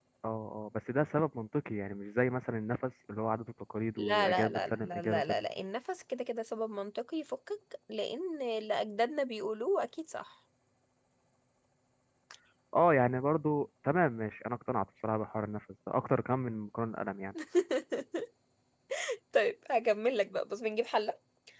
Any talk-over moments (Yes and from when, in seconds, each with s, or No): Yes, from 4.0 s